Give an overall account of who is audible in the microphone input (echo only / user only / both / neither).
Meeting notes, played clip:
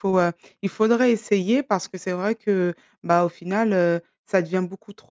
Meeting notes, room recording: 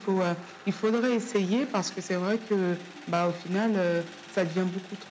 echo only